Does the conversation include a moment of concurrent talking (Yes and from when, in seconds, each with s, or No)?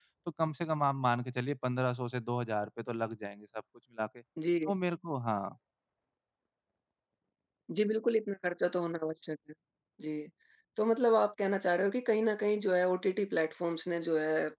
No